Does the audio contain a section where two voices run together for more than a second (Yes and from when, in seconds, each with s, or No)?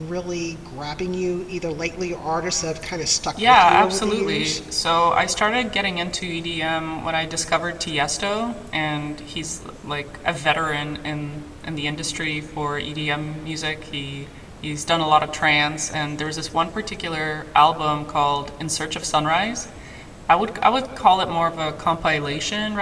Yes, from 3.4 s